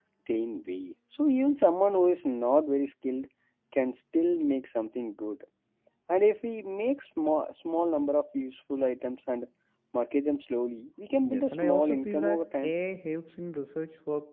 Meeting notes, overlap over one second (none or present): present